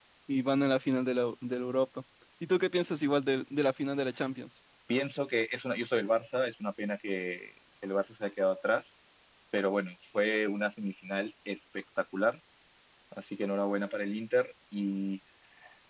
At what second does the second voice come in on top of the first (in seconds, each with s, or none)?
none